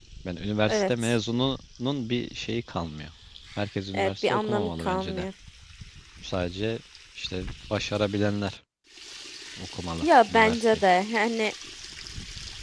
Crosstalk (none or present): present